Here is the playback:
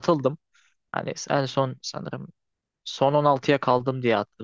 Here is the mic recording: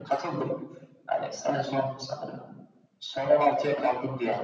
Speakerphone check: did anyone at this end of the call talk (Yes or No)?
No